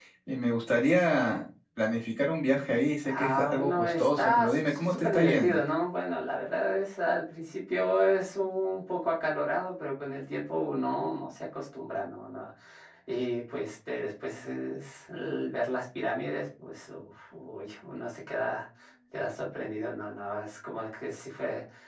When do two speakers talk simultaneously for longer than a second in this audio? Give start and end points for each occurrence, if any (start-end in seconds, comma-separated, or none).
3.1-5.6